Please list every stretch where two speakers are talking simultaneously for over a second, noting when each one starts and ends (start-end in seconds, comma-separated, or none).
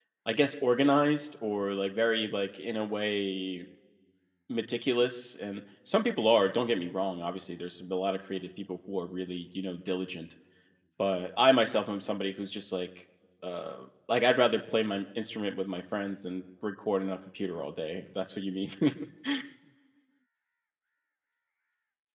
none